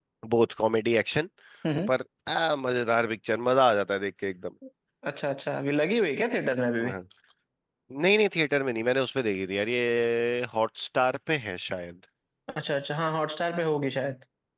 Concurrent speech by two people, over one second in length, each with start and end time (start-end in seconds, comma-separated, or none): none